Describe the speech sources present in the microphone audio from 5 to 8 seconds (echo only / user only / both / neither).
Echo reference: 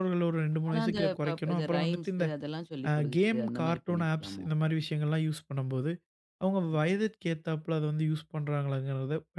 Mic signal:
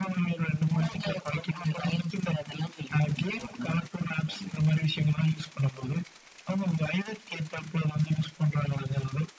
echo only